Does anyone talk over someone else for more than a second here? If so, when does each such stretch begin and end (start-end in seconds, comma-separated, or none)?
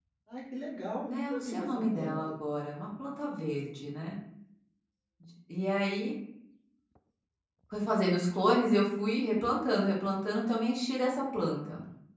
1.1-2.3